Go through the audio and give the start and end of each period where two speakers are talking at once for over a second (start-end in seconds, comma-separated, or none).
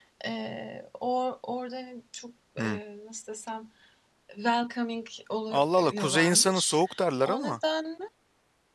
5.5-6.8